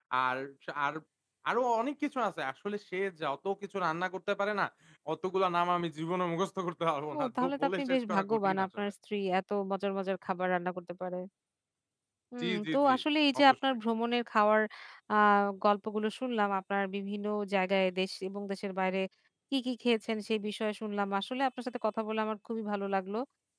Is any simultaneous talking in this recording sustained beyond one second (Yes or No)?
Yes